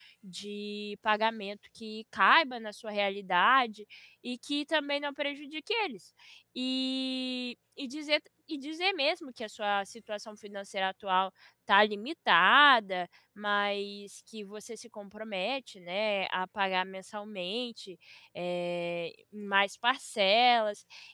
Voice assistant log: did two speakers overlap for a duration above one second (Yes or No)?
No